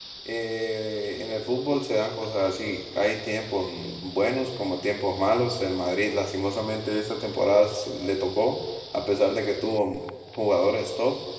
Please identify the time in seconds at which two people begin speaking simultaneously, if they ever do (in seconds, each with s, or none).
none